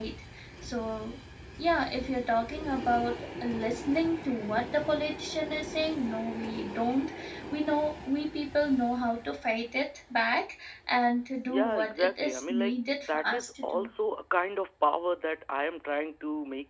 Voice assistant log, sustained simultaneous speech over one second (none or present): present